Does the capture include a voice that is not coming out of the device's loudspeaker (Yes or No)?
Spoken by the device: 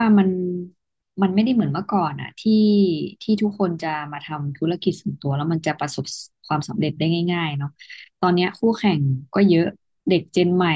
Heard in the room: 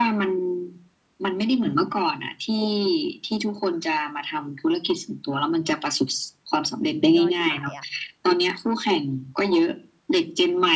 Yes